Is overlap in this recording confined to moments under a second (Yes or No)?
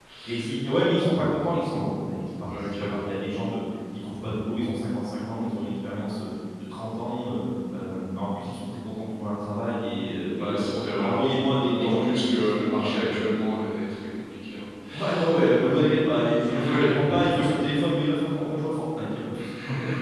No